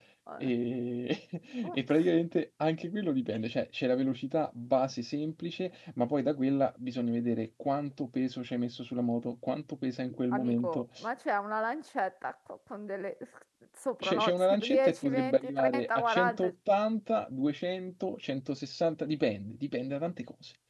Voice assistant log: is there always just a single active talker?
No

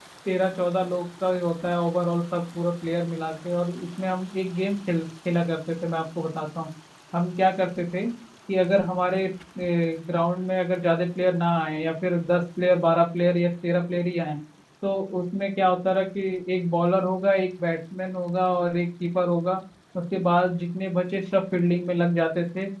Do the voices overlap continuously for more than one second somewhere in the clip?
No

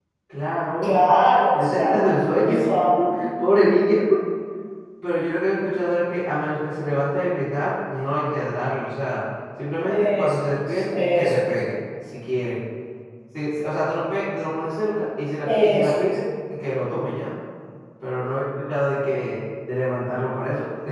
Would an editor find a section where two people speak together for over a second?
Yes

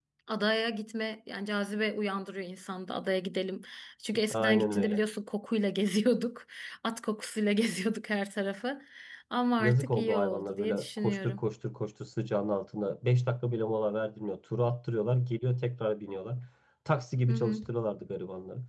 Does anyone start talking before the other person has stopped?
Yes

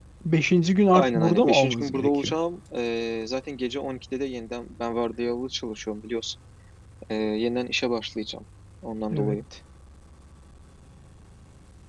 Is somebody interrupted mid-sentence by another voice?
Yes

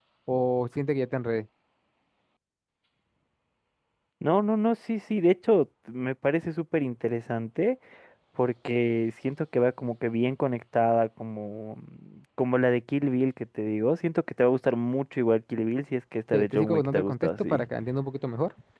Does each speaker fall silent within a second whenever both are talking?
No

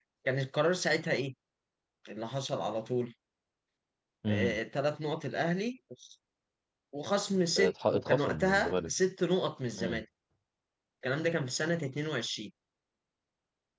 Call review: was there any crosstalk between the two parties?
Yes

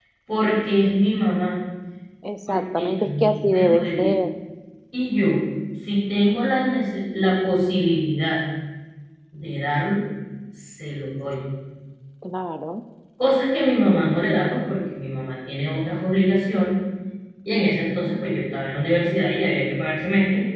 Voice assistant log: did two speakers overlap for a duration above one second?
Yes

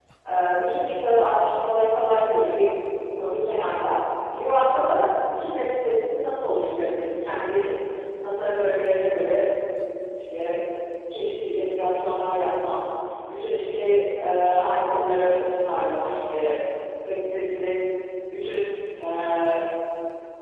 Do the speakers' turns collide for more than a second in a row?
No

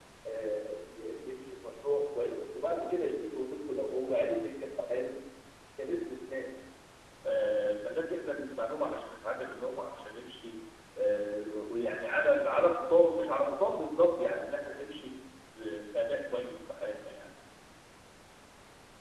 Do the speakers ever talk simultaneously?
No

